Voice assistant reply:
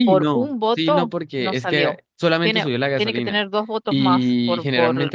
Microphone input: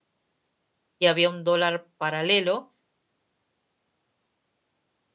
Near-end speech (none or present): present